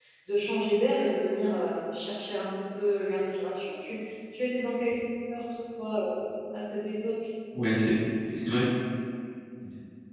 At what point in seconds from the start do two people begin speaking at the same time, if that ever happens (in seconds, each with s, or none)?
none